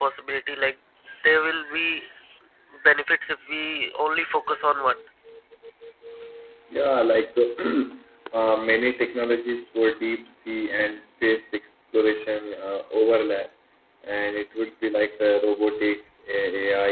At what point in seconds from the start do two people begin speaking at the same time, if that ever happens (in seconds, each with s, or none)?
none